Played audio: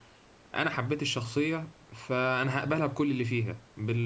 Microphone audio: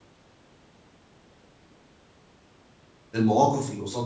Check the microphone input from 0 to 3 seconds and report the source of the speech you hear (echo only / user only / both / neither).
neither